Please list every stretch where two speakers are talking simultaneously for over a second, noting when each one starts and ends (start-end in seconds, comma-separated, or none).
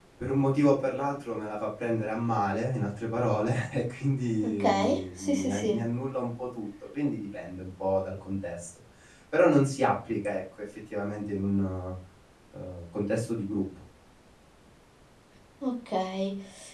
4.4-5.8